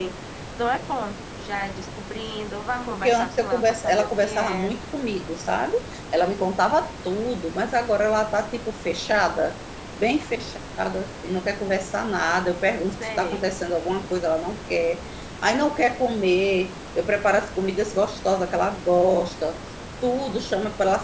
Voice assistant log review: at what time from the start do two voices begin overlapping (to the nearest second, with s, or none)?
3 s